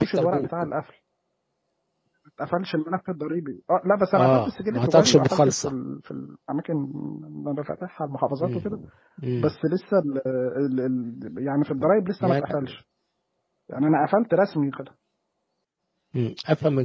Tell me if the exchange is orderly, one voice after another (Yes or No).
No